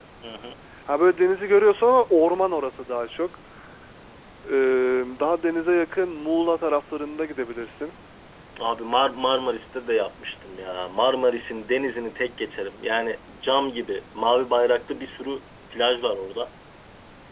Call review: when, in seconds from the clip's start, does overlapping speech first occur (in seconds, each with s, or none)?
none